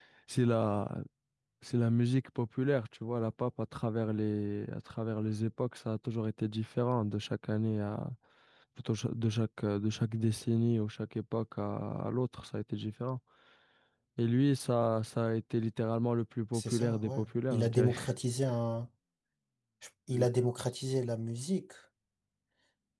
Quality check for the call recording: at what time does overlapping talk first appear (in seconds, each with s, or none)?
16.5 s